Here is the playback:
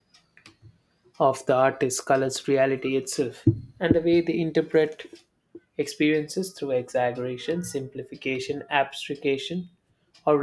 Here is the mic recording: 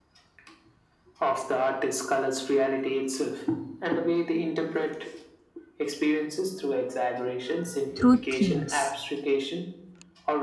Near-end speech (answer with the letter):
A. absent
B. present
B